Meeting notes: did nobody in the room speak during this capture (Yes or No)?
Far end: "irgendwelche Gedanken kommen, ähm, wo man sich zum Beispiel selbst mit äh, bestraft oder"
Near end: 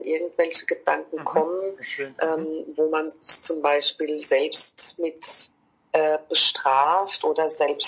No